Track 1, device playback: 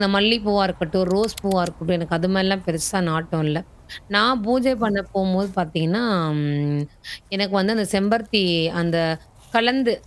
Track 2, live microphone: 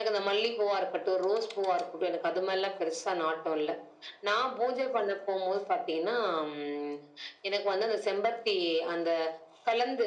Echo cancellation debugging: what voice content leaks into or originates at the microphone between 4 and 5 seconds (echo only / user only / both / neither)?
echo only